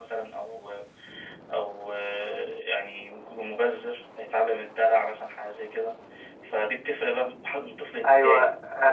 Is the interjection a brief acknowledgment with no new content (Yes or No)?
No